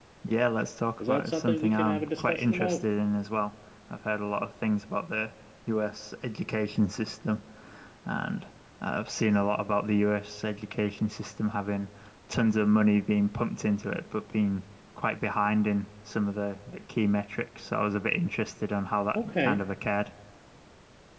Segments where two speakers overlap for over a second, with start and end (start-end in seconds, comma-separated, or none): 1.0-2.9